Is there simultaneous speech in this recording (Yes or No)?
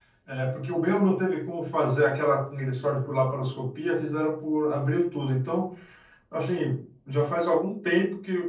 No